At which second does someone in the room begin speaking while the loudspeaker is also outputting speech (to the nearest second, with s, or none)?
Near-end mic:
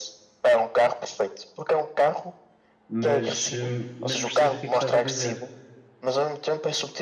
3 s